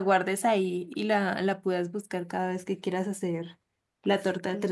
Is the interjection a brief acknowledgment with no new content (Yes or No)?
No